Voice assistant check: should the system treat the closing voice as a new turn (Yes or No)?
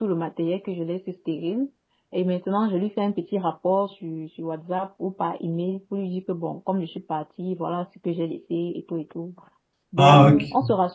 No